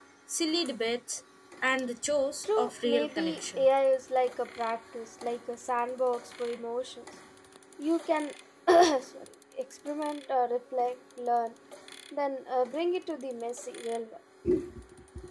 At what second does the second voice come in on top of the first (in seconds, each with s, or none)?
2.4 s